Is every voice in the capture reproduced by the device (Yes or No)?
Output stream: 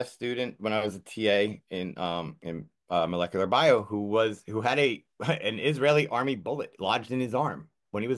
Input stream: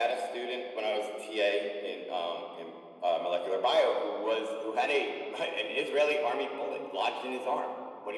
Yes